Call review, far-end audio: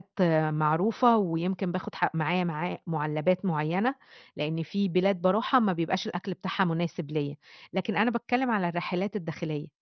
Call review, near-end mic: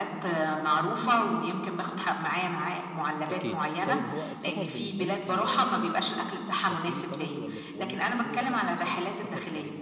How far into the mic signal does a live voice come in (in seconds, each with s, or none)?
3.3 s